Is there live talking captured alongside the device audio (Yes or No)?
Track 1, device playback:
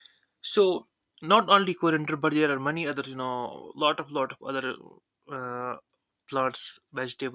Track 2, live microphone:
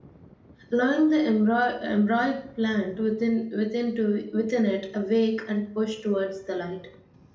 Yes